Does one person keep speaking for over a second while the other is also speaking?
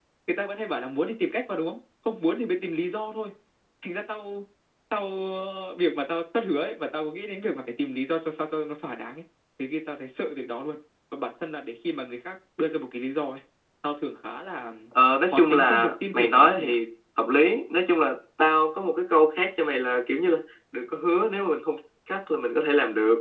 Yes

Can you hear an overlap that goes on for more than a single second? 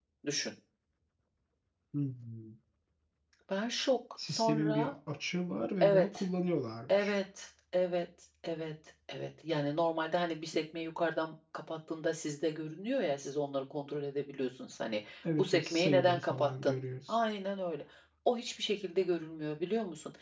Yes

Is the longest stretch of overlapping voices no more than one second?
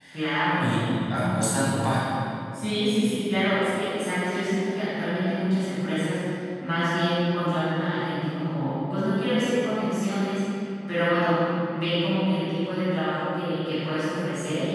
Yes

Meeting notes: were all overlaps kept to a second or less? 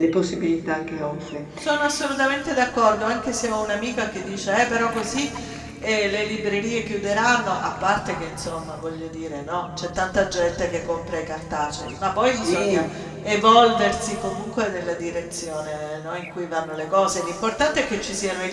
Yes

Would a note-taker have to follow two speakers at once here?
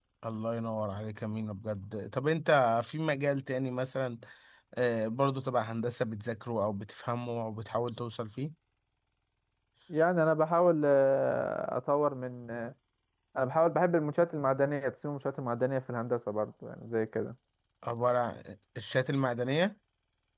No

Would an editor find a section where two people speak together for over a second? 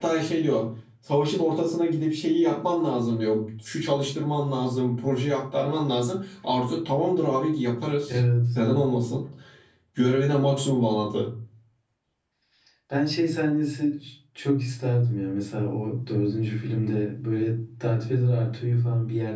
No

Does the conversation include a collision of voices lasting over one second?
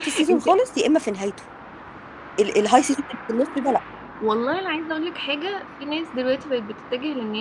No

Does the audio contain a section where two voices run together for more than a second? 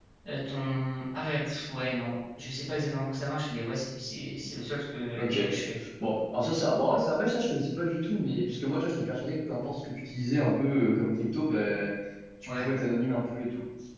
No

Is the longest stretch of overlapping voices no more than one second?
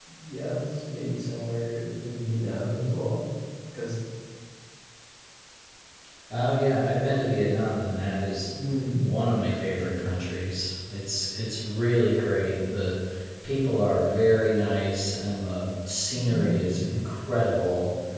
Yes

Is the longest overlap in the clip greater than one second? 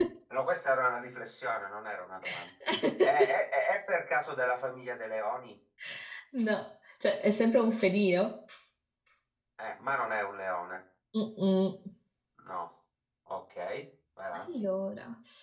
No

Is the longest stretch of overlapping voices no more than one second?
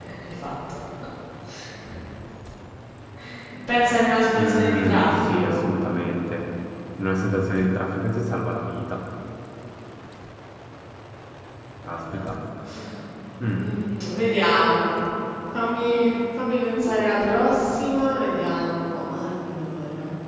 No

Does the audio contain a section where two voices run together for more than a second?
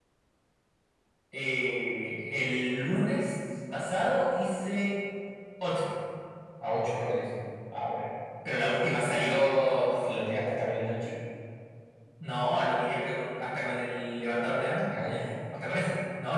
No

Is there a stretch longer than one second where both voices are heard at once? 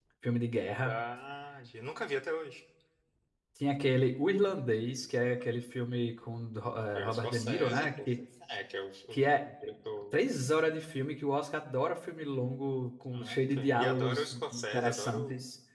Yes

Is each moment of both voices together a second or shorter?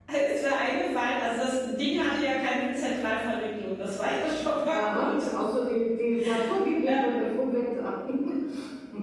Yes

